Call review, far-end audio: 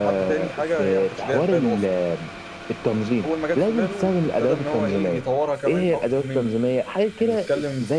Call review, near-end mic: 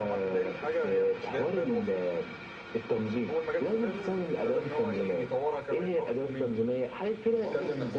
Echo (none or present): present